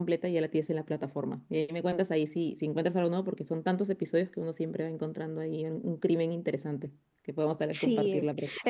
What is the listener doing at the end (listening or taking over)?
taking over